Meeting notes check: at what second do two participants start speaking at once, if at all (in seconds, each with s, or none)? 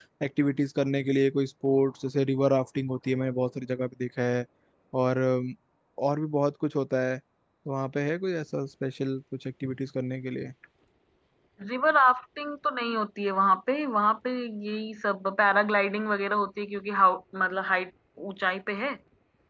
none